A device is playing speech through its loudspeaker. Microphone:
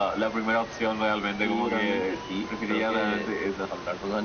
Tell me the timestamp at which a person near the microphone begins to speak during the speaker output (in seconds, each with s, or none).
none